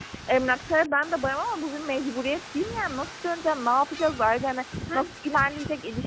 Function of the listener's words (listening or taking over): listening